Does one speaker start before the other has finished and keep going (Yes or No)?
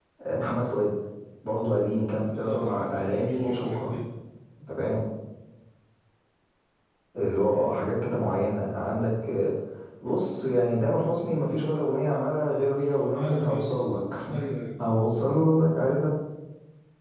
Yes